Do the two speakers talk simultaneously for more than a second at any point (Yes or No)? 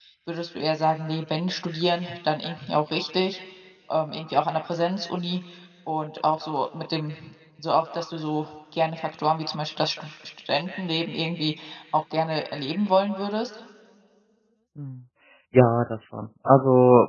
No